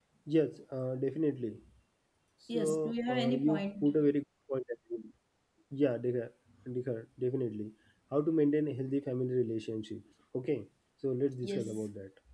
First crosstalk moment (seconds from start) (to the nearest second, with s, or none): 3 s